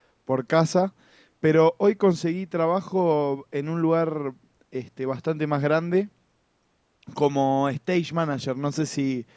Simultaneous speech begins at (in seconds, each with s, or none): none